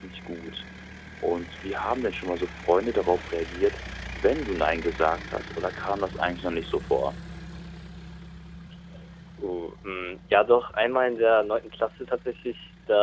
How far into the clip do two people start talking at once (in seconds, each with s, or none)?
none